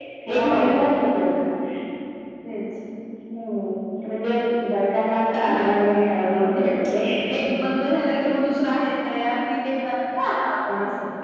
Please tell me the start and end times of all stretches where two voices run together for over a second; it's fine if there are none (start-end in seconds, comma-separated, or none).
5.5-6.7